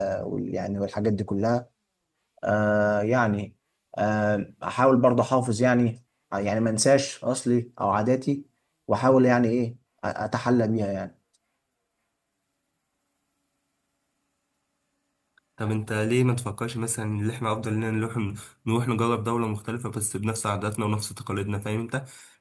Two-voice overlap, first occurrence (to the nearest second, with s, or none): none